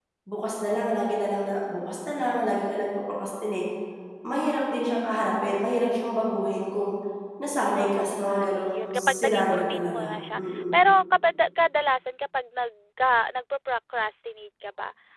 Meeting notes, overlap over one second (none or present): present